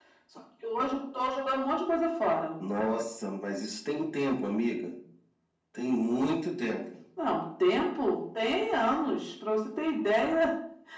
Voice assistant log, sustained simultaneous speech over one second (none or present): none